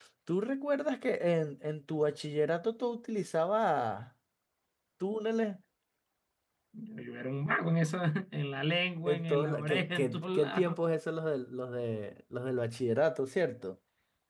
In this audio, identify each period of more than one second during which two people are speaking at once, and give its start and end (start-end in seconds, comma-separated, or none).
9.1-10.8